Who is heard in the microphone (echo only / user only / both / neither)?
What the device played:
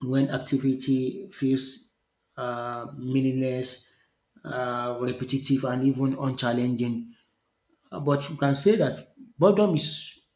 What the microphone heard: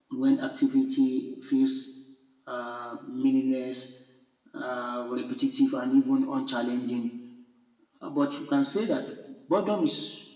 echo only